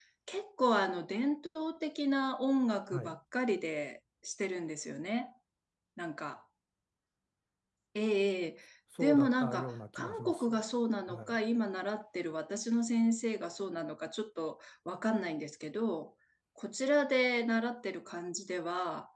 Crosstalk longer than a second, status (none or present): present